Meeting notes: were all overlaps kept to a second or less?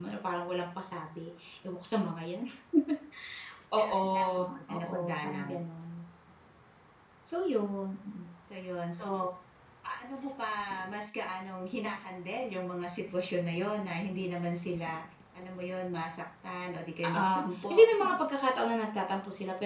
No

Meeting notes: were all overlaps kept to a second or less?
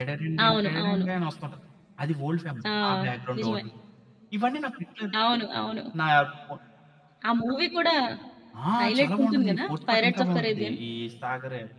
No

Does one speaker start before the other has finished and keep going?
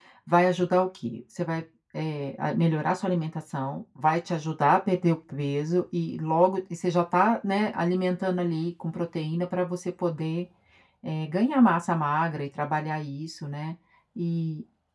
No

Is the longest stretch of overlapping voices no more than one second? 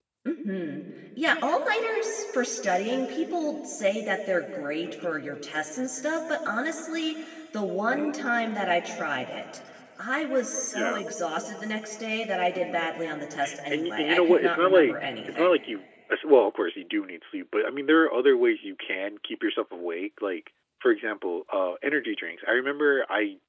No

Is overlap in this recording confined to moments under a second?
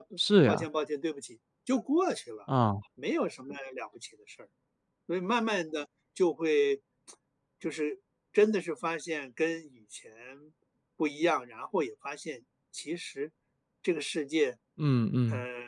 Yes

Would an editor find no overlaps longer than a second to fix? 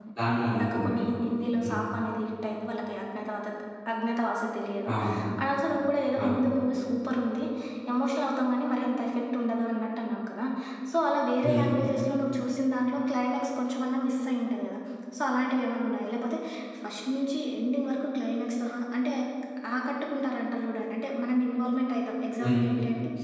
Yes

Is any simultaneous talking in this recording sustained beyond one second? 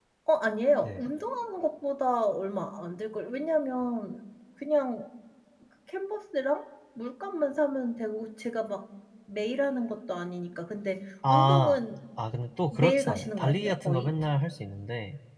Yes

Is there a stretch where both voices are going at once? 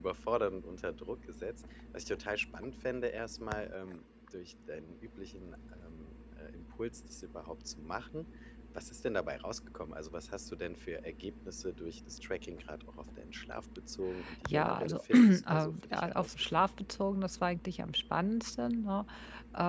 Yes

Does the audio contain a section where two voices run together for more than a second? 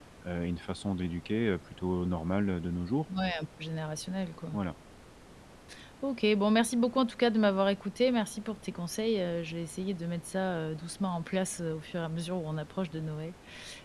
No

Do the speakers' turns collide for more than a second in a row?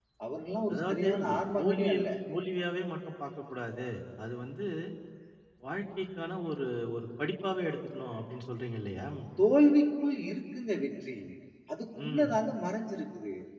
Yes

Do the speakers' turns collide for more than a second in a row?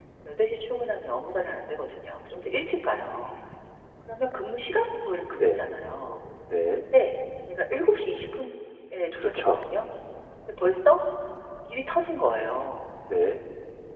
No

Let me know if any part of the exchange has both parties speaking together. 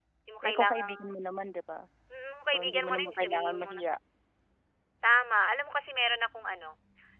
Yes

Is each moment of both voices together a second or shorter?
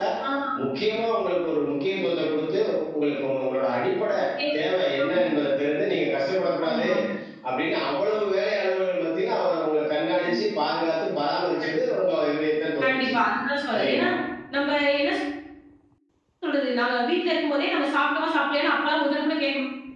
Yes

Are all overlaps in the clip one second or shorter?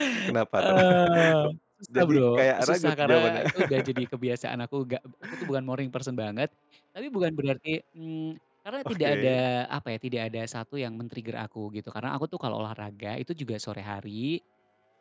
No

